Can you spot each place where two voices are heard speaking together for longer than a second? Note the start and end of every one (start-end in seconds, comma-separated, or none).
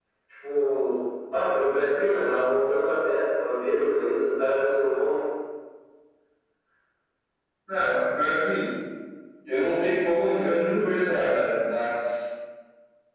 none